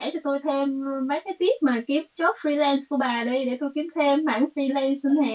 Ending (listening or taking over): taking over